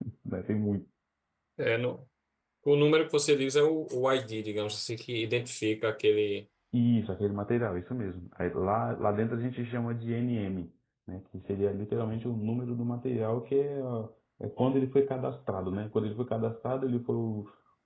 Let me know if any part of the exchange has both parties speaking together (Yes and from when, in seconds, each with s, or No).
No